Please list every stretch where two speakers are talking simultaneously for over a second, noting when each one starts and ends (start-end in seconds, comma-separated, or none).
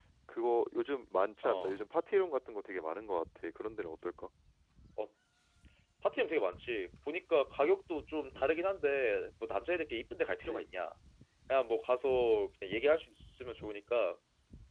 none